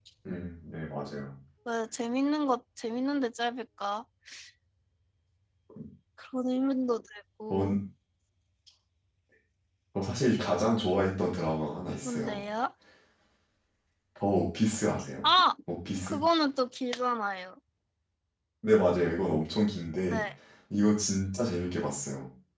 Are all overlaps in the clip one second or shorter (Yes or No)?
Yes